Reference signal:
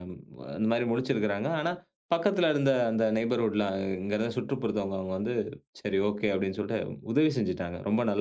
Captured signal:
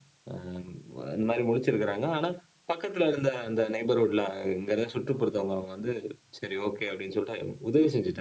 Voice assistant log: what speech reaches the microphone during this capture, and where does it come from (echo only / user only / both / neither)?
echo only